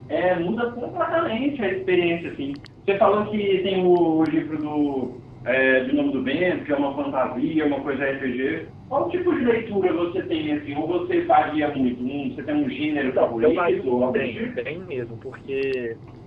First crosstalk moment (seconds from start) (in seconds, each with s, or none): 13.0 s